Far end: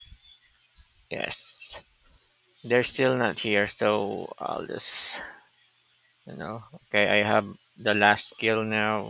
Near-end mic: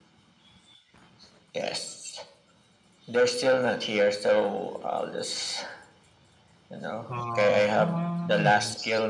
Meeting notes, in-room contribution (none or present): present